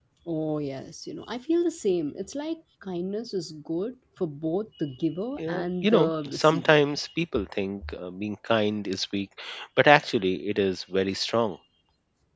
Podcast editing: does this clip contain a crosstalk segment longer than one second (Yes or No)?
Yes